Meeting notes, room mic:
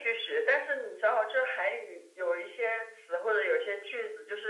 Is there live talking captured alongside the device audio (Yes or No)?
No